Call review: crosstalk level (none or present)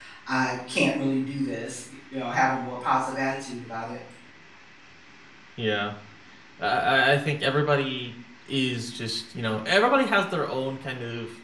none